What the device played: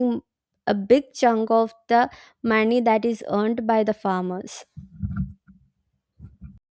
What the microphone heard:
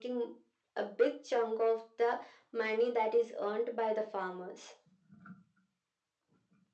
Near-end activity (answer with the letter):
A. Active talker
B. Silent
B